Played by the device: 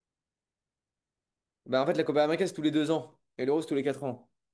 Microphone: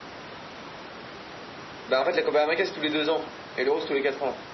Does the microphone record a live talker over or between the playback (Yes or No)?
No